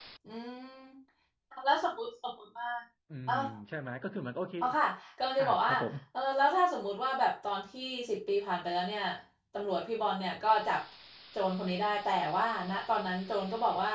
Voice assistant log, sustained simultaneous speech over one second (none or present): none